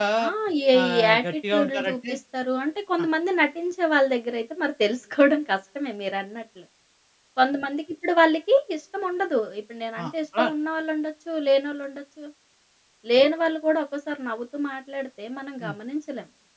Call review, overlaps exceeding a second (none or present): present